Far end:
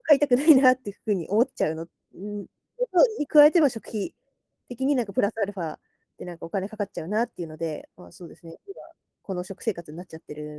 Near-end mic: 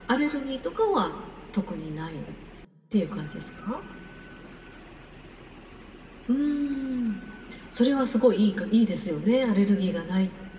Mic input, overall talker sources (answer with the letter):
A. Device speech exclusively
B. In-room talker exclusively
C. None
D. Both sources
B